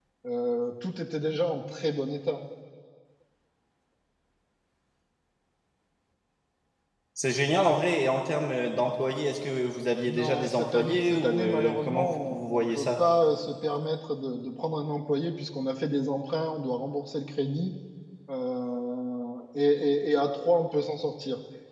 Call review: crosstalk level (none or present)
present